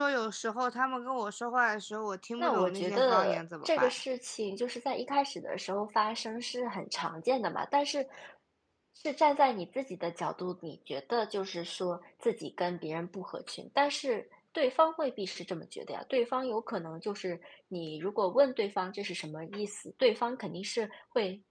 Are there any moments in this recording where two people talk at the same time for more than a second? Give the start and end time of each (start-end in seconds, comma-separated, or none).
2.4-3.9